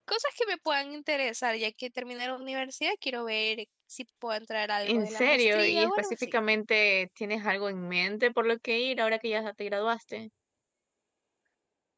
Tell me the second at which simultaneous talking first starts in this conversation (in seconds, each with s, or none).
4.8 s